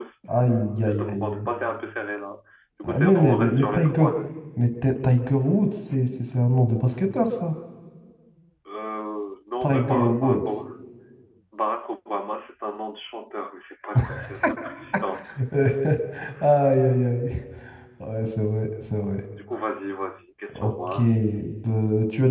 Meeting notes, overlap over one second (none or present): present